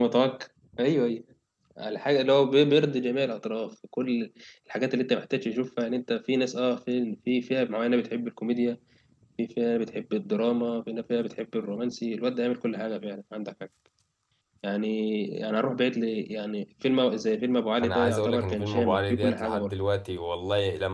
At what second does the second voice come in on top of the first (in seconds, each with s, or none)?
17.8 s